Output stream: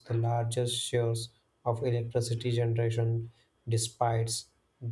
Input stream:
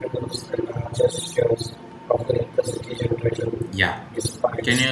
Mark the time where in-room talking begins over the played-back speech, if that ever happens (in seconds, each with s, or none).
3.7 s